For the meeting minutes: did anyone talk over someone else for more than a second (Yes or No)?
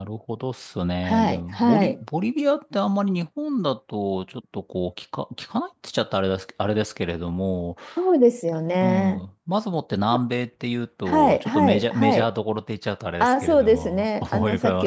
Yes